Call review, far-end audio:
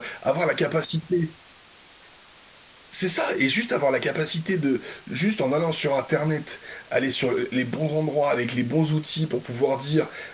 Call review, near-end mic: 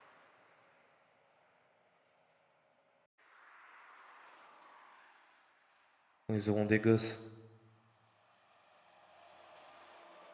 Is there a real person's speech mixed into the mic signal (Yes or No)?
Yes